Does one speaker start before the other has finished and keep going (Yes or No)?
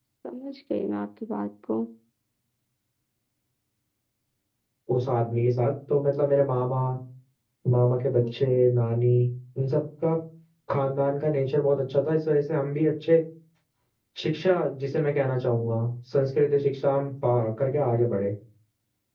No